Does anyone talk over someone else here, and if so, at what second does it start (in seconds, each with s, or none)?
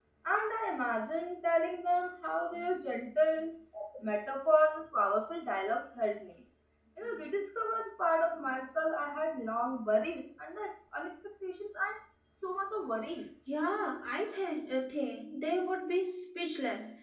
none